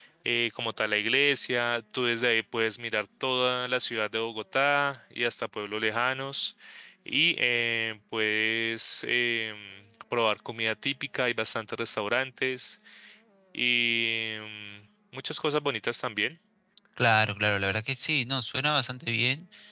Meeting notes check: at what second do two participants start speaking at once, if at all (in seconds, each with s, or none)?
none